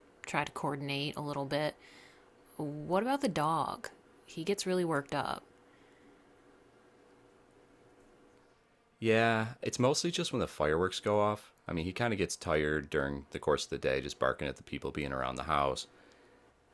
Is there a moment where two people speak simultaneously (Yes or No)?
No